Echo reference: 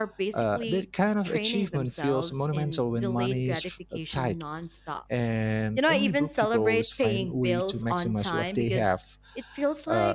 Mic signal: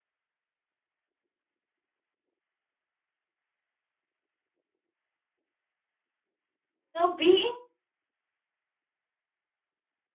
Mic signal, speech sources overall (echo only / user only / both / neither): user only